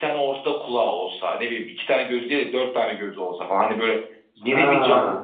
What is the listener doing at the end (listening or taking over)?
listening